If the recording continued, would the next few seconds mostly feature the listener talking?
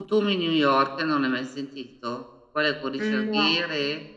No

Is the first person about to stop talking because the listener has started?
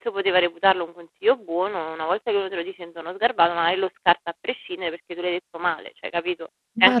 Yes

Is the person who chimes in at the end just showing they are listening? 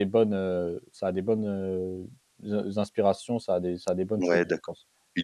No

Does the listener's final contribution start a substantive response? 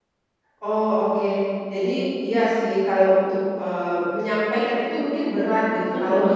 No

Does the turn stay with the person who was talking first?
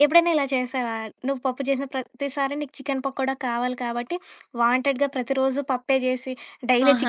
No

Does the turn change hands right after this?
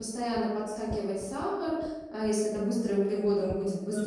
No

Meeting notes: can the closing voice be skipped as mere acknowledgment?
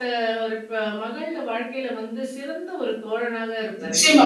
No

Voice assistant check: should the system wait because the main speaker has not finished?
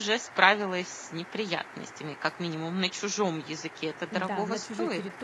No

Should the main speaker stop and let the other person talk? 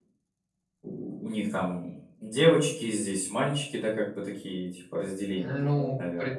Yes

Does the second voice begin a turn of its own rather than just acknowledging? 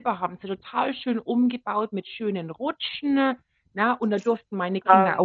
No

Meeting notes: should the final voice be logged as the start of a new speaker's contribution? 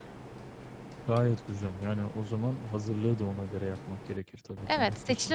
Yes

